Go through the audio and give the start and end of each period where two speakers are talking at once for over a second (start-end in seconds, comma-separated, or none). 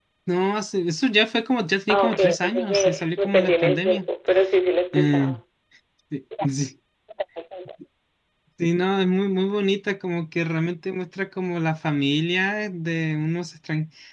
1.9-4.0